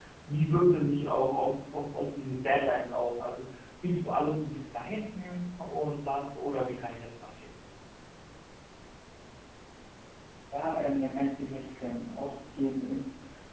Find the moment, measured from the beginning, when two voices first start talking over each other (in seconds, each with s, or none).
none